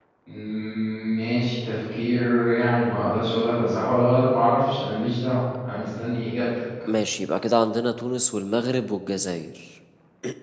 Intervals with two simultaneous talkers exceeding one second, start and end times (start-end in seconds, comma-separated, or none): none